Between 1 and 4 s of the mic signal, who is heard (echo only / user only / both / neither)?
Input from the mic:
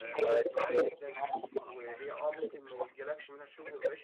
both